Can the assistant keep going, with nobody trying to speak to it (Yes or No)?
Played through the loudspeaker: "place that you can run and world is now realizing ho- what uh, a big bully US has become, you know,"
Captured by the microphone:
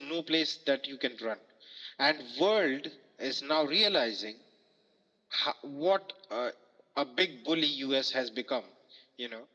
Yes